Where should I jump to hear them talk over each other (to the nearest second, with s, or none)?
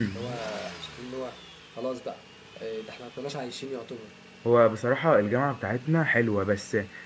none